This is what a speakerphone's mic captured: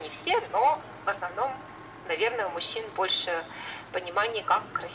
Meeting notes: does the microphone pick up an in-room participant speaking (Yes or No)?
No